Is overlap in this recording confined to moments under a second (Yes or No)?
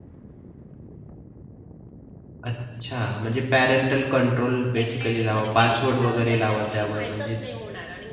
No